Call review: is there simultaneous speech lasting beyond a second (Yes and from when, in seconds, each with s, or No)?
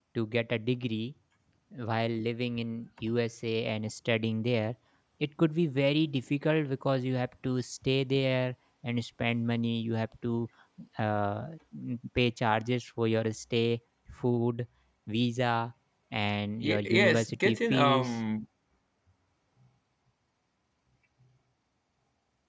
Yes, from 16.6 s